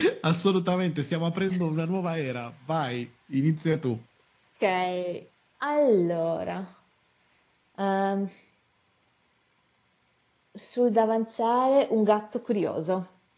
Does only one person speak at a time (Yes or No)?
Yes